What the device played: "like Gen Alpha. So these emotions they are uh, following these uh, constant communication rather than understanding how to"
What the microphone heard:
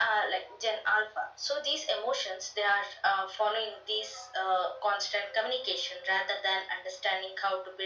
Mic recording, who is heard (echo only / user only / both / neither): echo only